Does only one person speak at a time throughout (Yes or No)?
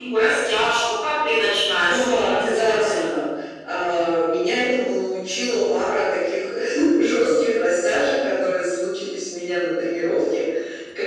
No